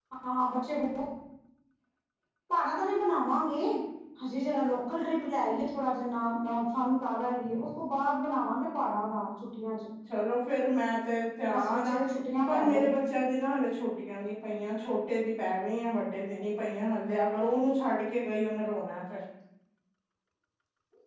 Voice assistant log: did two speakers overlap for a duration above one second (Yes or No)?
No